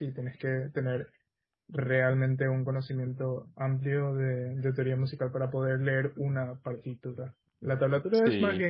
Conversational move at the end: listening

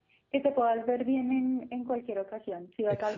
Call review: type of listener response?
listening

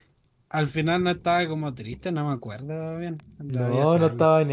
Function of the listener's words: taking over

